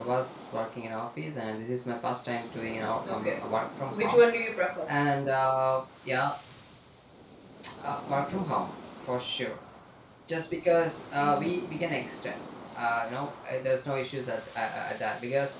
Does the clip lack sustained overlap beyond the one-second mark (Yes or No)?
Yes